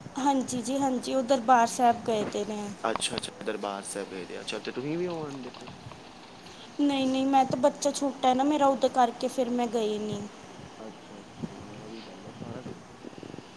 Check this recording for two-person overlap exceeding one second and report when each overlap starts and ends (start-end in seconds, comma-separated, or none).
none